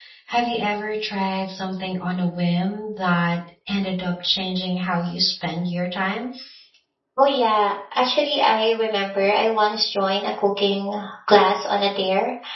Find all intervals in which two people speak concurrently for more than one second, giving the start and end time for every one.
none

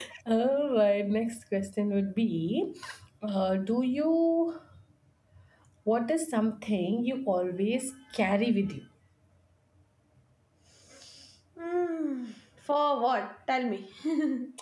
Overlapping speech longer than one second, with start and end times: none

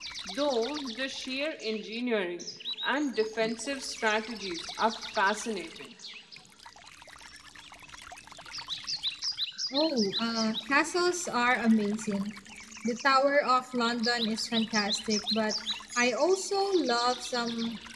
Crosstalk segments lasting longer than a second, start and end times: none

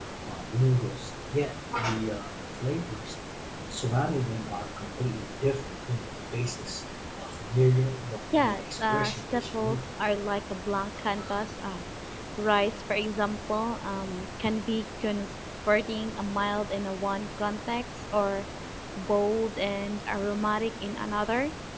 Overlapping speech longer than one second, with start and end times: 8.4-9.8

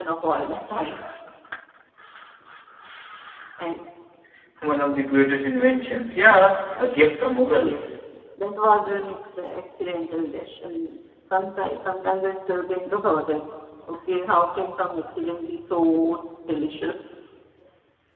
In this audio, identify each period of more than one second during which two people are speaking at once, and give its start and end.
none

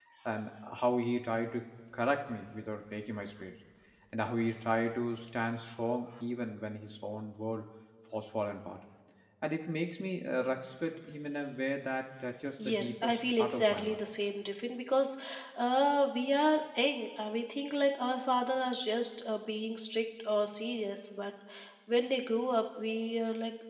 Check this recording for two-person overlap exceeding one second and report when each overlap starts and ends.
12.7-14.0

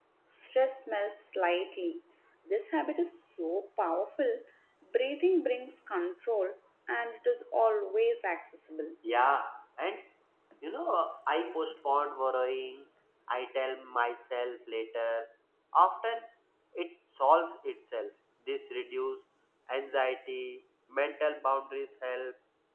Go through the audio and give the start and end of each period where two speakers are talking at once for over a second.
none

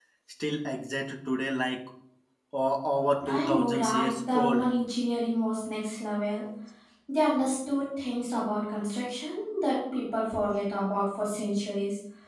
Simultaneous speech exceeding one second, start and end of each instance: 3.2-4.7

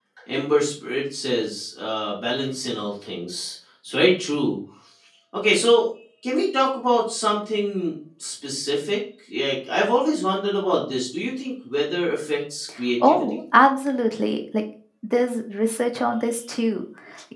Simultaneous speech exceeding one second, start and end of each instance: none

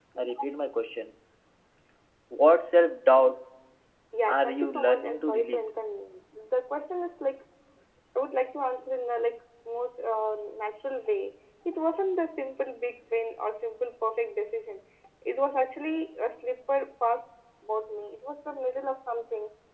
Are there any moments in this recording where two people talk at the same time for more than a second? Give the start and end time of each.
4.3-5.7

